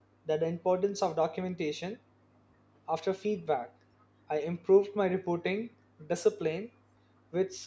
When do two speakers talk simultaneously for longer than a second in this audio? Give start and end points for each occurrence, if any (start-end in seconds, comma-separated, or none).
none